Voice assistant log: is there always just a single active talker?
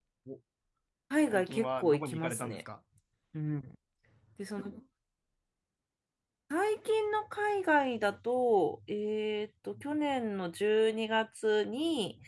No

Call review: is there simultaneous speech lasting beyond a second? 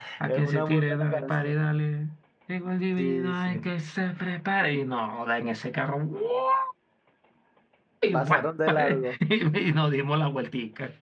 Yes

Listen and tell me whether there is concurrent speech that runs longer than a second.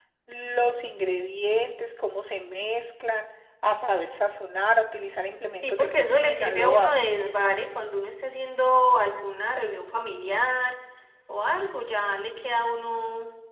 Yes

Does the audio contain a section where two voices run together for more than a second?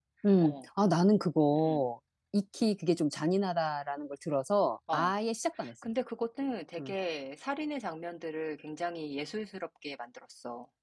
No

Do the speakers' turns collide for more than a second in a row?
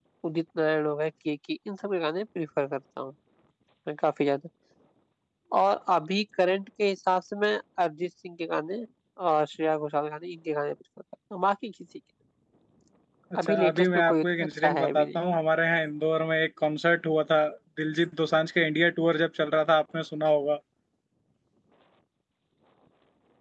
Yes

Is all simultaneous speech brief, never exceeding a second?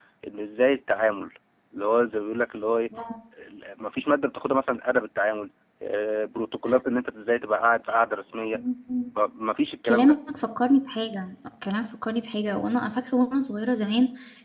Yes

